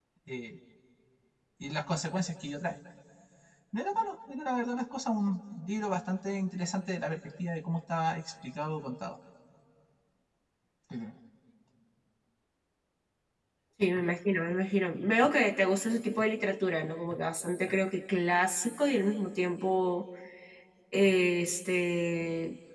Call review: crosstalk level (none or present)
none